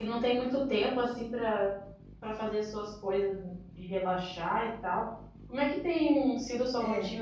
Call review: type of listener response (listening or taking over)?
listening